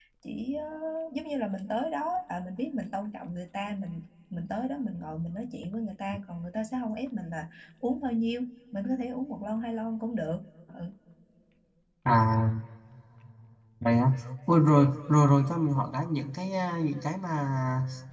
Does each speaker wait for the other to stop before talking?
Yes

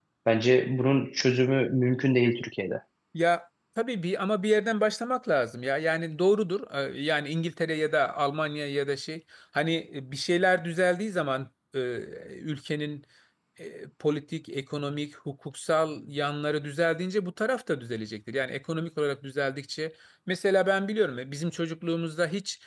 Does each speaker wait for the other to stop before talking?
Yes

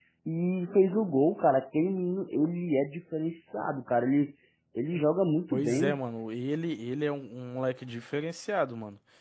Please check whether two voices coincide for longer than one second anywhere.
No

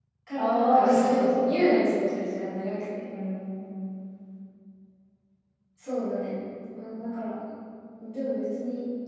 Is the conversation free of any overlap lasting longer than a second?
No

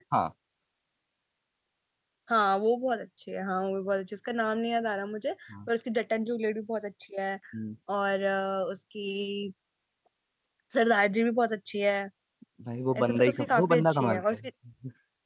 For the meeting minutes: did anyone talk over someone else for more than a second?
Yes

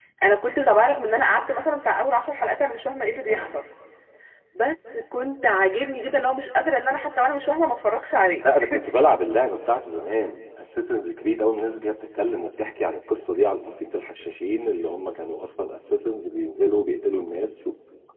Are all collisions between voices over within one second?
Yes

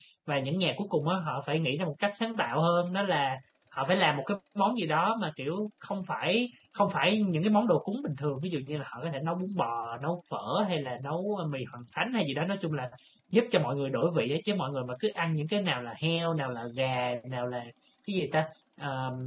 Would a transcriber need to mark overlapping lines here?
No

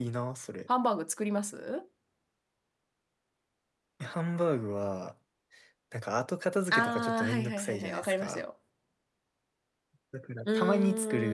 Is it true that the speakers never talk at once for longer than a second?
No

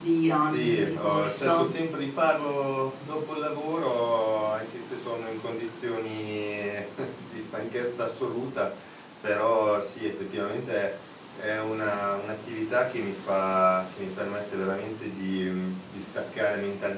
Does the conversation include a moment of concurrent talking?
Yes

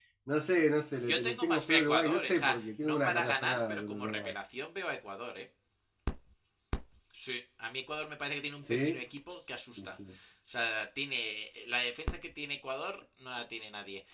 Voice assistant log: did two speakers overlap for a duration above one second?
Yes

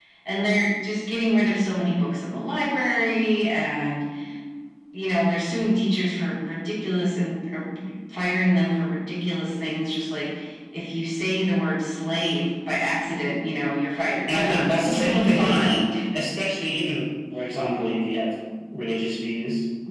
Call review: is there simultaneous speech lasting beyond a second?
Yes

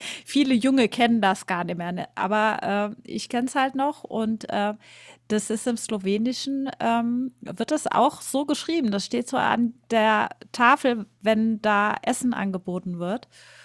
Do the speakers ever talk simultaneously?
No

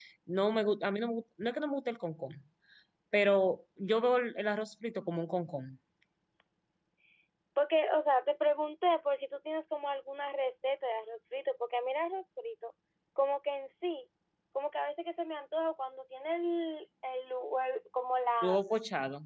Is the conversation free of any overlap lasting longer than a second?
Yes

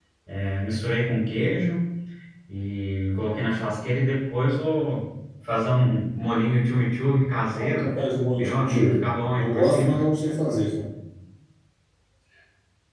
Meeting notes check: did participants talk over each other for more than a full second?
Yes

